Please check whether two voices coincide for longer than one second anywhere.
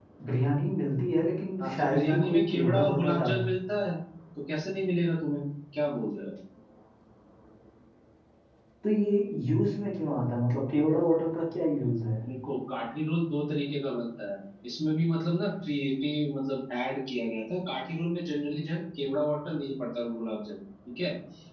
Yes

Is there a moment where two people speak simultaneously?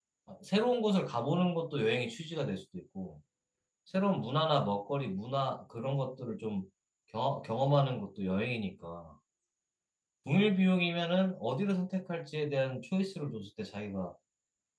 No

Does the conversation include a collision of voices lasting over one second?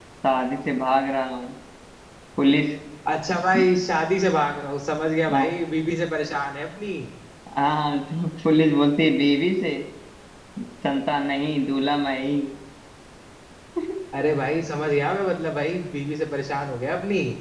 No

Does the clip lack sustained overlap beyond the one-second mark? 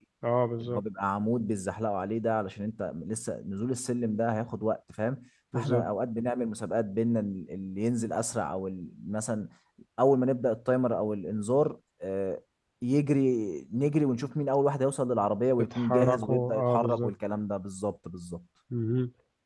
No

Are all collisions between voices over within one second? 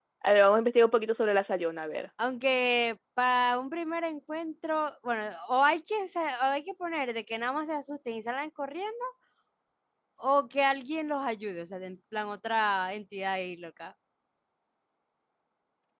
Yes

